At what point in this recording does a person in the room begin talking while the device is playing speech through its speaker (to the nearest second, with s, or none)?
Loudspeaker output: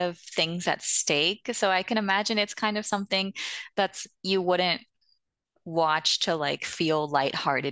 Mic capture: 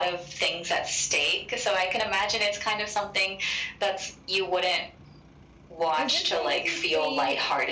6 s